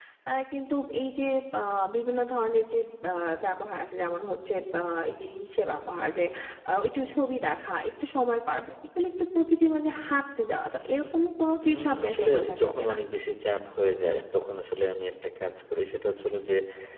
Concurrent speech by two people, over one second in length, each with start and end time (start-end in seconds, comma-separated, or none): 11.7-12.9